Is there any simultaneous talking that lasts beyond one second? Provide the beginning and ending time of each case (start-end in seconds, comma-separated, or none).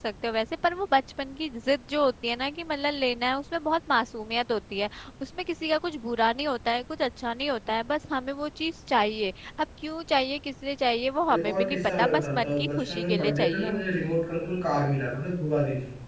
11.3-13.7